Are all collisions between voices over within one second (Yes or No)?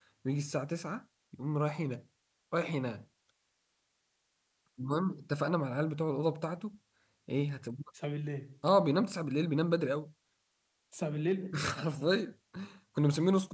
Yes